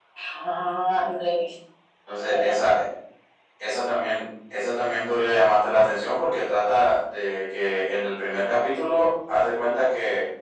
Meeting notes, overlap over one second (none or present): none